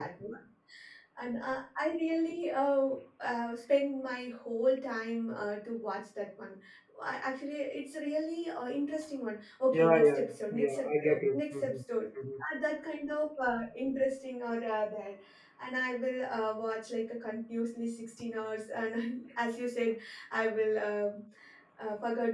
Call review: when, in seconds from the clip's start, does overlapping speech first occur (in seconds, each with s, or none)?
9.7 s